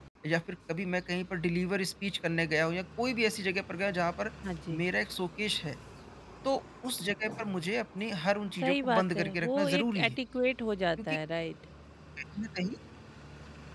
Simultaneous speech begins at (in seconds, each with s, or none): 8.6 s